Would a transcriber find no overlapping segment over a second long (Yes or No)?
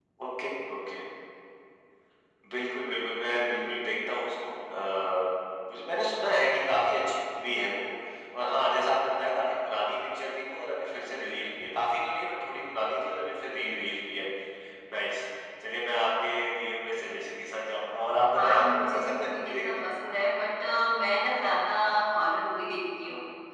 No